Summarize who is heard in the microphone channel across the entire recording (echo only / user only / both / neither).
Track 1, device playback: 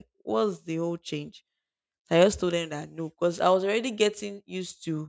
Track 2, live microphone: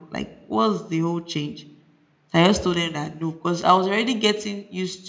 echo only